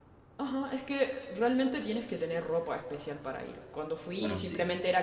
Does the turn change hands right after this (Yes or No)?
No